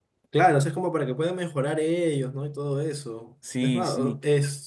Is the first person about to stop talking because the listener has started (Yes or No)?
No